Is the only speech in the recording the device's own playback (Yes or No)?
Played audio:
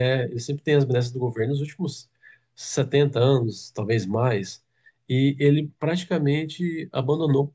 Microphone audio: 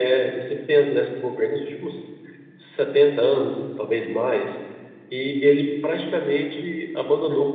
Yes